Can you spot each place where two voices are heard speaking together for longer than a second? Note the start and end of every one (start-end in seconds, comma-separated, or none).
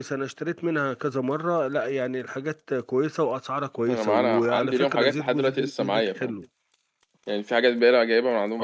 3.9-6.3